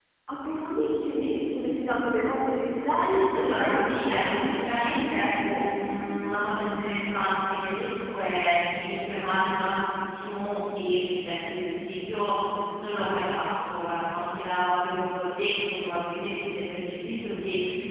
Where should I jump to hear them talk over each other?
3 s

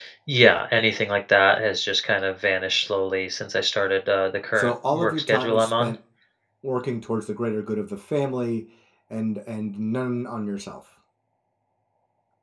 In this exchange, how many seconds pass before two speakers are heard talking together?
5 s

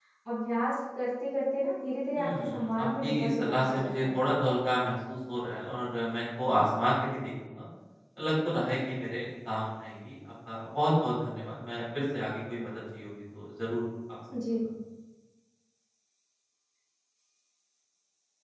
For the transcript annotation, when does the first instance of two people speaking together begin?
2 s

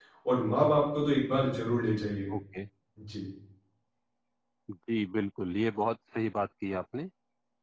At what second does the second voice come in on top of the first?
none

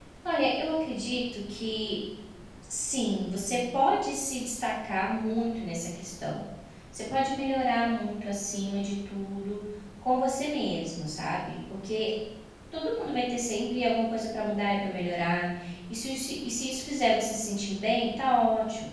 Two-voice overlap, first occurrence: none

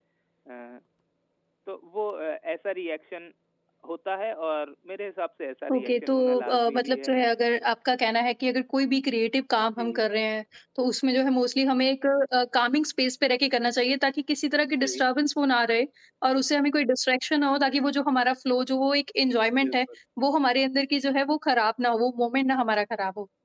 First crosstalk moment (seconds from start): 6 s

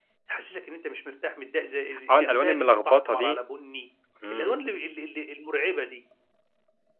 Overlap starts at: 2 s

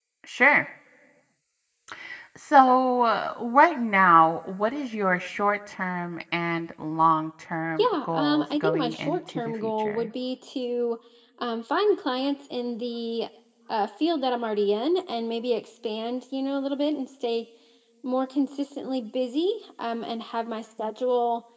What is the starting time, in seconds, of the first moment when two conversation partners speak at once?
8 s

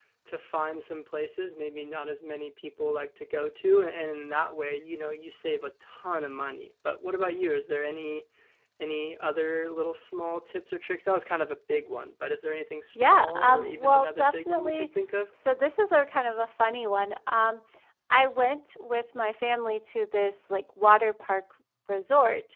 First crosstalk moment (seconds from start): 13 s

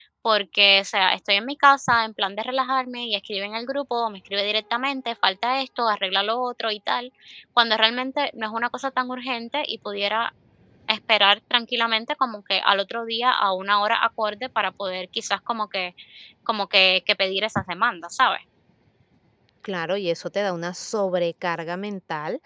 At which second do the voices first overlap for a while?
none

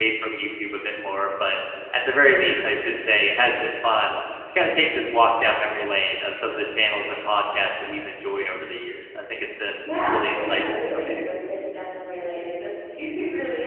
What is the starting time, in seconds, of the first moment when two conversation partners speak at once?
10 s

